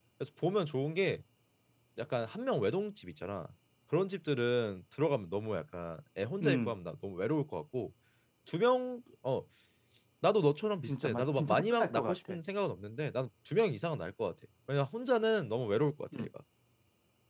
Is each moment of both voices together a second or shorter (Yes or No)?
No